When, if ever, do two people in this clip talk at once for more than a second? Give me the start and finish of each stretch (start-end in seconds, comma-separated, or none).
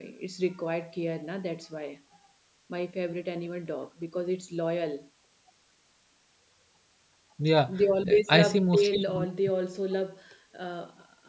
7.8-9.0